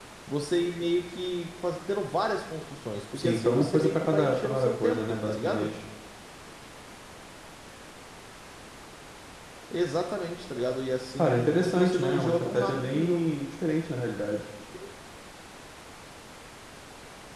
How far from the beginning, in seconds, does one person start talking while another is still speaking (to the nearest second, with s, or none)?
3 s